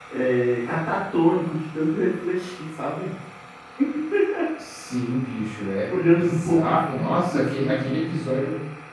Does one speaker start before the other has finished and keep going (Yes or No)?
Yes